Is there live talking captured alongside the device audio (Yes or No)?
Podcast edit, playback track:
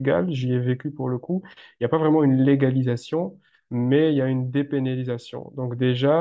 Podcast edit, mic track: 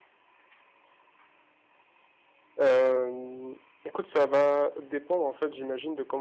Yes